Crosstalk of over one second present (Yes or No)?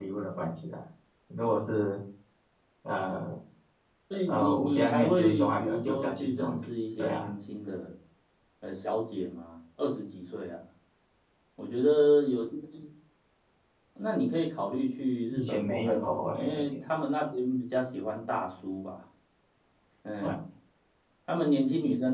Yes